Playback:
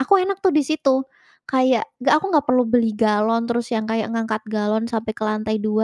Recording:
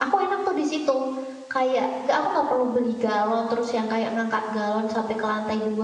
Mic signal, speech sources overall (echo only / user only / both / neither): echo only